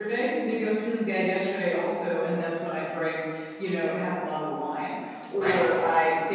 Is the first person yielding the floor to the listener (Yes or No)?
No